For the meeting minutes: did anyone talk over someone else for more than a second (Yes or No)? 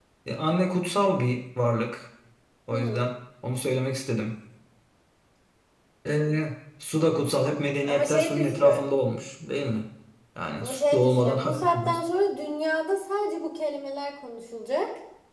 Yes